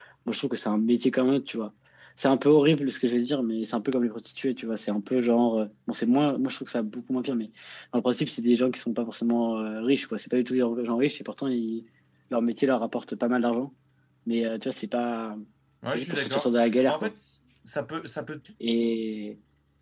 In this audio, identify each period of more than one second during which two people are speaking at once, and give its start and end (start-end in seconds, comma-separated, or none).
15.9-17.1